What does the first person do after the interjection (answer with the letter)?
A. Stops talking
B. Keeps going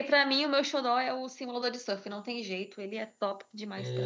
A